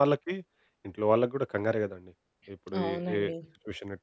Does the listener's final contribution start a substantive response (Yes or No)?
No